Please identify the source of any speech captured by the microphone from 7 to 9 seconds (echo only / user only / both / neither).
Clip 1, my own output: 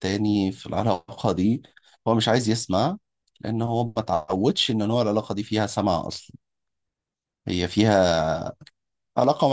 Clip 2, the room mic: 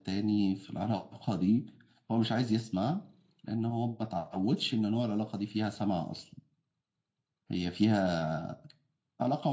echo only